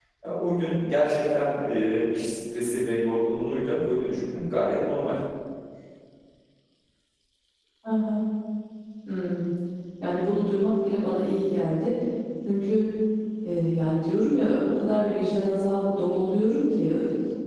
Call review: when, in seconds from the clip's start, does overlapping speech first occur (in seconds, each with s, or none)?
none